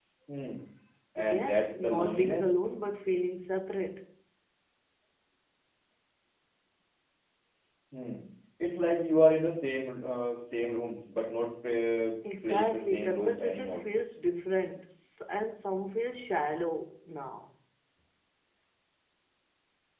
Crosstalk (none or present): present